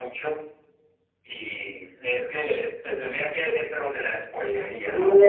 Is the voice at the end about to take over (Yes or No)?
Yes